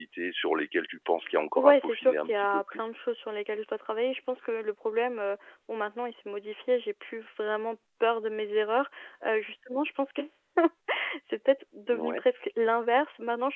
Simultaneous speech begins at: 1.6 s

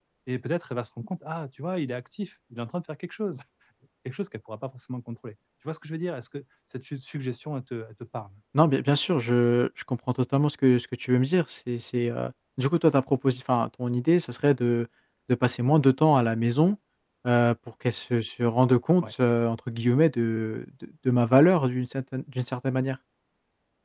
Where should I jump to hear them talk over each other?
none

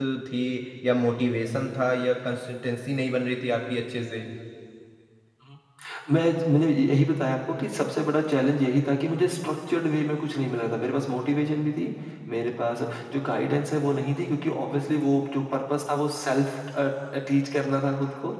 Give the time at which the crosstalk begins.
none

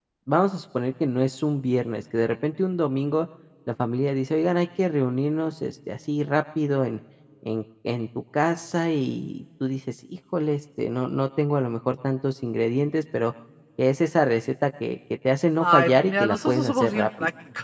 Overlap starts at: 15.6 s

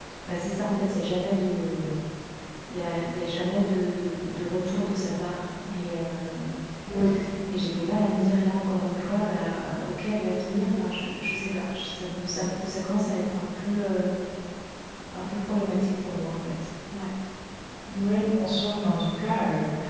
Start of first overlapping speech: none

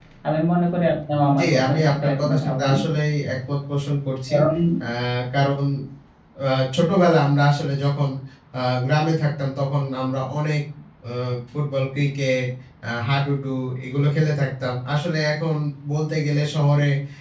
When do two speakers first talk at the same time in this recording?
1.2 s

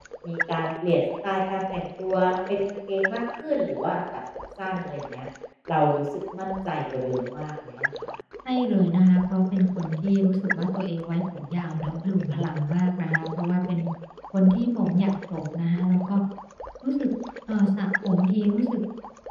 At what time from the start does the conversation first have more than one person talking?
none

